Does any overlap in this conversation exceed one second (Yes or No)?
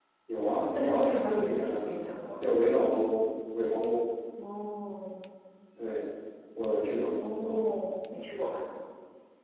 Yes